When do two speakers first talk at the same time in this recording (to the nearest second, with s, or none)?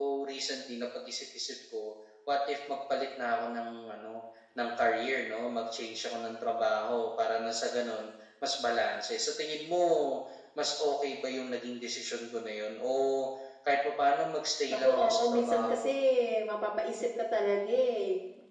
15 s